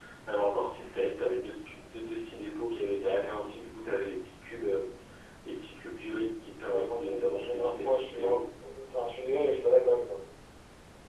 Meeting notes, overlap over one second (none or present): present